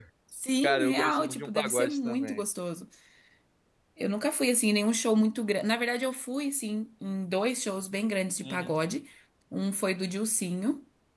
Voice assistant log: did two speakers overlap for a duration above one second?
Yes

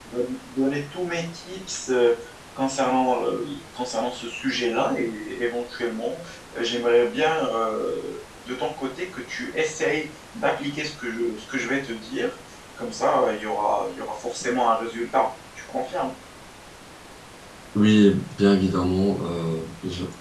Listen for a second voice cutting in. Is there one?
No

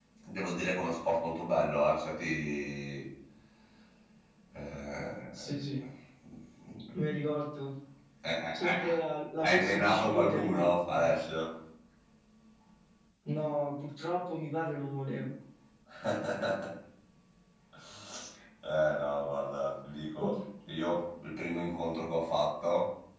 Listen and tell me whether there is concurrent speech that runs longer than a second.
Yes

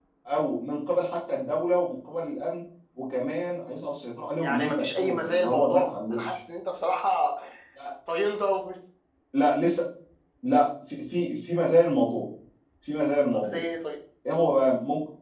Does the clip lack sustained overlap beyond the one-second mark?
No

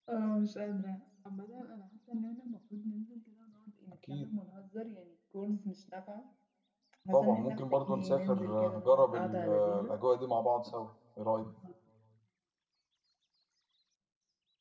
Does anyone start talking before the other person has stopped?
Yes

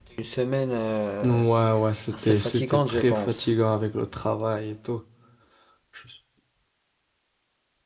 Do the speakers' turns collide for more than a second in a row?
Yes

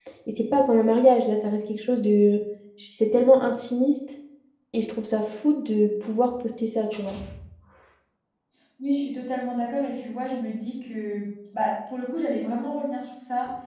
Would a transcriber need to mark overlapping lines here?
No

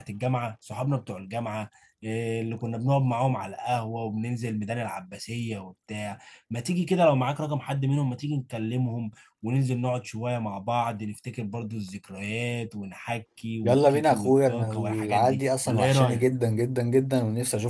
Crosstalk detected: Yes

